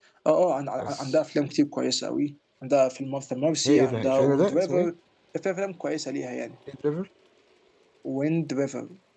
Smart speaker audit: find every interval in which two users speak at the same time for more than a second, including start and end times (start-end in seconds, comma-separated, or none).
3.6-4.9